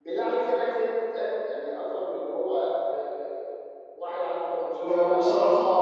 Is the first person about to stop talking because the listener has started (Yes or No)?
Yes